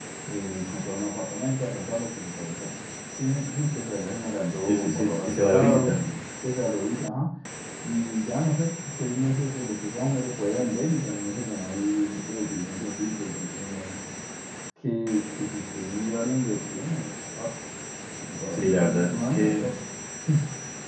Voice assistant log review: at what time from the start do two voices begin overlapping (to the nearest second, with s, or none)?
5 s